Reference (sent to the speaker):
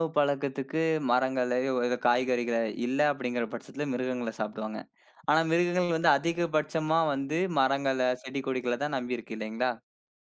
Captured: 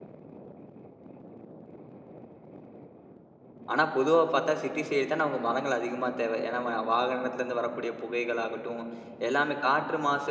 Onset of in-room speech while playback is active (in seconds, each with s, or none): 3.7 s